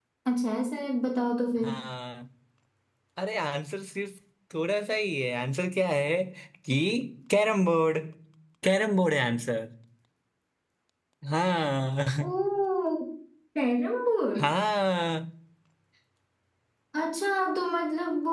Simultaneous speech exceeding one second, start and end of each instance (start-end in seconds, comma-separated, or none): none